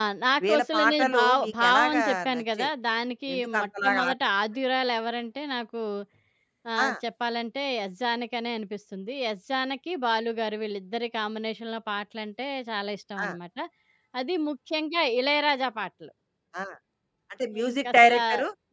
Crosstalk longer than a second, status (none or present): present